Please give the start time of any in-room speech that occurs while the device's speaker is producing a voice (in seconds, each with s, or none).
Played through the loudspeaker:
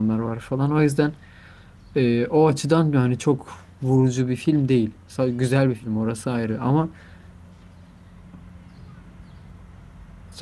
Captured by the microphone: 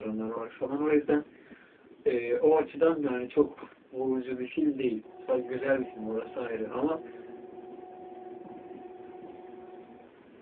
none